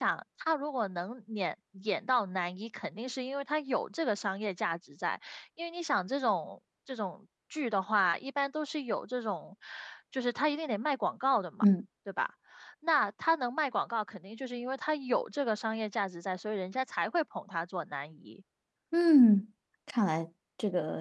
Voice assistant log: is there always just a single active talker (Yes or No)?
Yes